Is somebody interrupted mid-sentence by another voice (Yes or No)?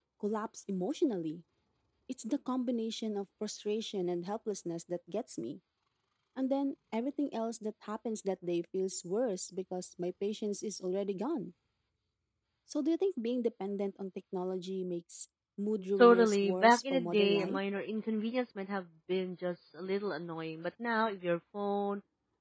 Yes